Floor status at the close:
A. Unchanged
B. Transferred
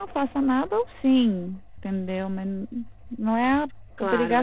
B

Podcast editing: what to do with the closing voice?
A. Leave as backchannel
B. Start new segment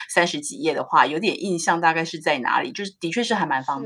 B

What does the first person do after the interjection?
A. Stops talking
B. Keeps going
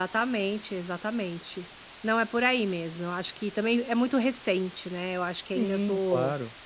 A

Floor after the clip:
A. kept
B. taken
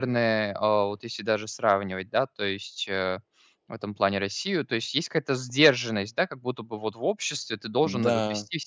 A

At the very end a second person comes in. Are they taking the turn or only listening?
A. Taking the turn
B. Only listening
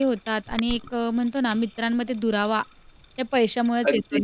A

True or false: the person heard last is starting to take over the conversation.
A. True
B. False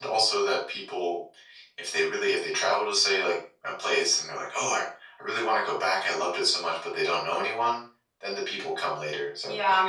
A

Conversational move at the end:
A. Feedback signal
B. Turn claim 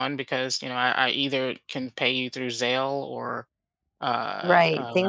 B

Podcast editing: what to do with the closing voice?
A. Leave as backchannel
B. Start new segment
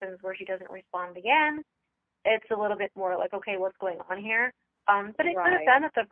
A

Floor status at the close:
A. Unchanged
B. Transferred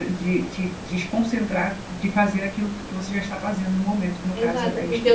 B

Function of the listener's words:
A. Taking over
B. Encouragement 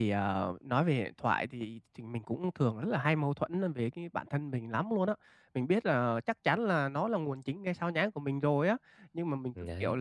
B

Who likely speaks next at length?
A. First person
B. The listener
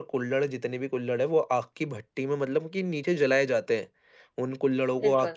A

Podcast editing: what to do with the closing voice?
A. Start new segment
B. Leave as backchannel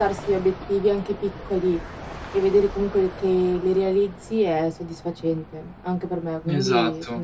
A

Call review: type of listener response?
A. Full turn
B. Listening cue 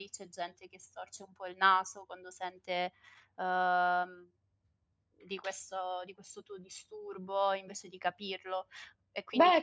B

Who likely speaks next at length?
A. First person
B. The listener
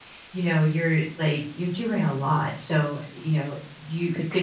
A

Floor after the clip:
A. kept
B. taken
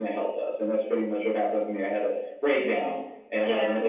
A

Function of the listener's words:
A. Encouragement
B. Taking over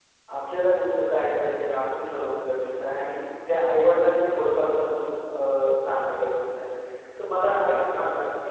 A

